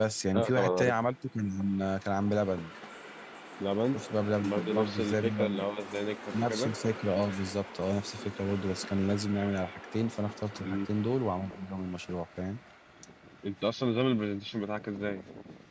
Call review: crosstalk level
present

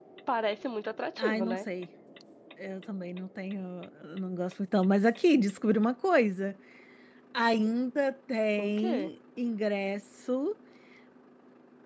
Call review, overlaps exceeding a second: none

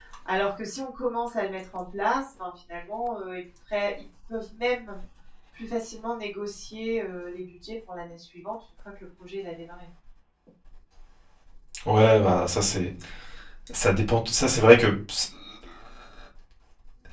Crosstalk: none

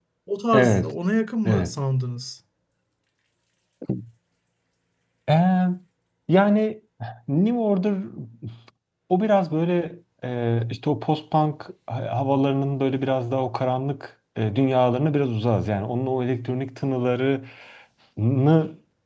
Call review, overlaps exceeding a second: none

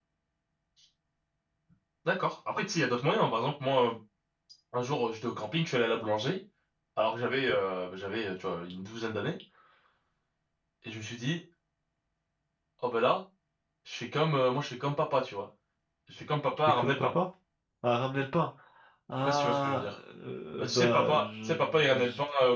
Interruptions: present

